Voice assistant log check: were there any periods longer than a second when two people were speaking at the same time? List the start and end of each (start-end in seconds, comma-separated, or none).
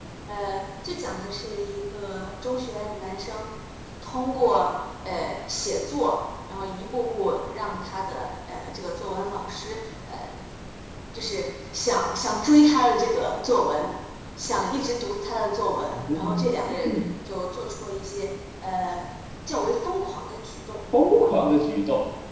none